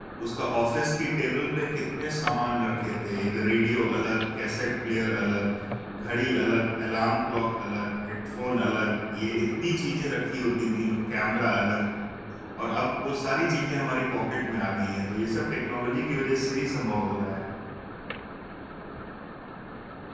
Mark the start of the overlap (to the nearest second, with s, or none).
none